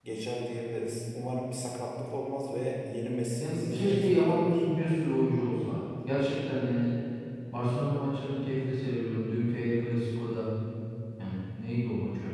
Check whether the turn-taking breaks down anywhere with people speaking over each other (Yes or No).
Yes